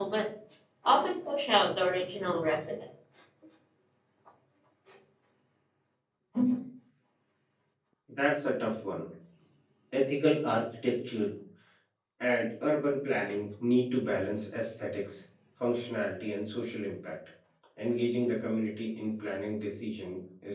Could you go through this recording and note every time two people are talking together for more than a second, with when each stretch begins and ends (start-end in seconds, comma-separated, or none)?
none